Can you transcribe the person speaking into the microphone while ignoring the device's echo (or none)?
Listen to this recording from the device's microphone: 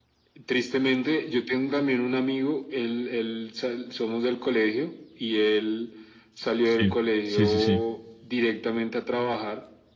Sí, sí, sí, sí.